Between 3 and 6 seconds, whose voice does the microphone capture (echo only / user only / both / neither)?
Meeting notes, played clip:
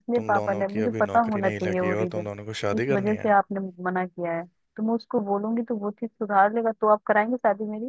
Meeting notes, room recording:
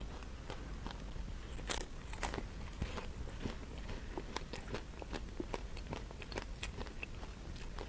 neither